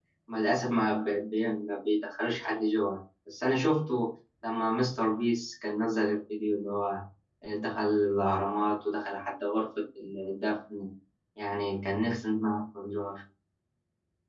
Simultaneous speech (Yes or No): No